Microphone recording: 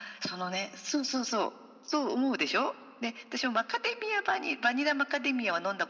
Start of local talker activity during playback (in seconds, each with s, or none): none